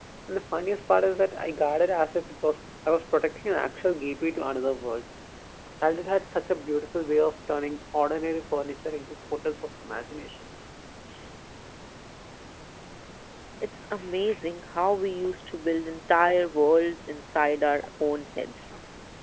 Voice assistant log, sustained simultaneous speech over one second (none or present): none